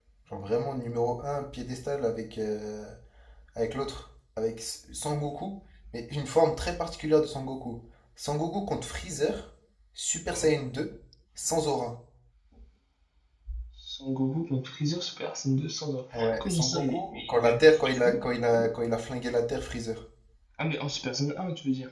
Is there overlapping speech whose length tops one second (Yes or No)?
Yes